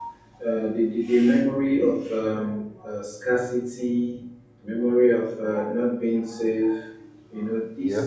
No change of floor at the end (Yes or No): Yes